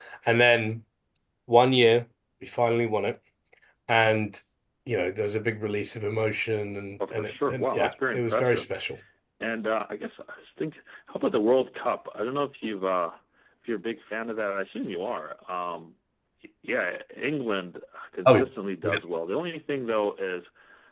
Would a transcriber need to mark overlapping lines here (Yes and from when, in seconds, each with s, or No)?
Yes, from 7.0 s